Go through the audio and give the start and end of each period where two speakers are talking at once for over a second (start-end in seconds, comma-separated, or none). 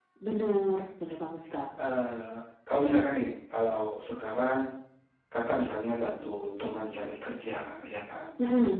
none